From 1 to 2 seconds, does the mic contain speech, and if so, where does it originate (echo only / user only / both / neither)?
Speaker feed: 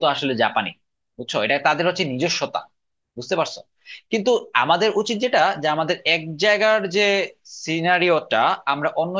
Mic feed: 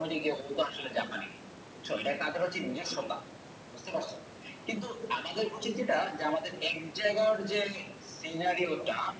echo only